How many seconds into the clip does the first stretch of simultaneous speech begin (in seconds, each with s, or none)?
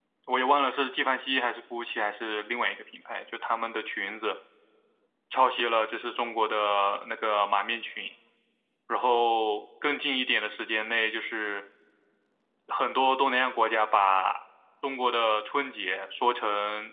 none